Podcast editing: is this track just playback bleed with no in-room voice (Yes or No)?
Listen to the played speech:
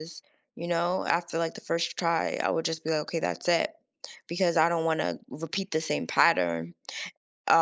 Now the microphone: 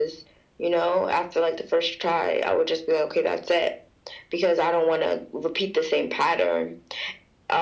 Yes